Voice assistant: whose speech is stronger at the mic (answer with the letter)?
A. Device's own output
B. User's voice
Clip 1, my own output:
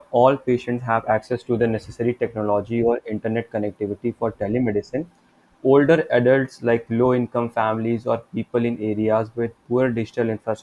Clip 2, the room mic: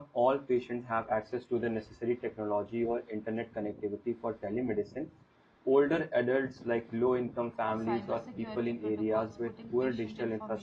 A